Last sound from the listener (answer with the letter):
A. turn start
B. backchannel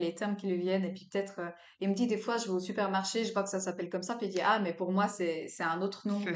A